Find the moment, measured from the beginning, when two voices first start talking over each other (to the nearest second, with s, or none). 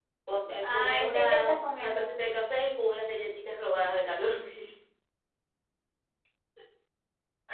1 s